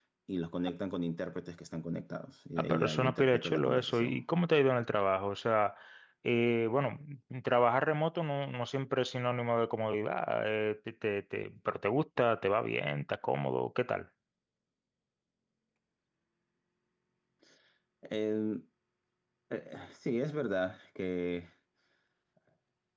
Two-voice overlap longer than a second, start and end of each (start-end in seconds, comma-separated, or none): 2.6-4.2